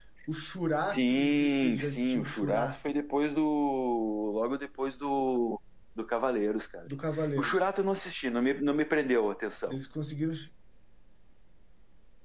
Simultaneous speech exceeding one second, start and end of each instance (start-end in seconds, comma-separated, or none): 0.9-3.0